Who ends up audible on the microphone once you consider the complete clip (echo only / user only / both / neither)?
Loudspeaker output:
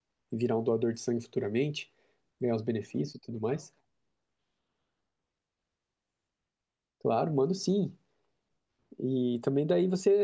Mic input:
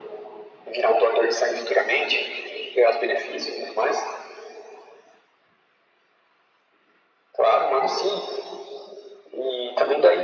echo only